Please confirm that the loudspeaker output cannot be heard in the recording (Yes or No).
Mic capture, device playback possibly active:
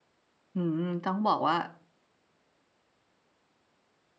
Yes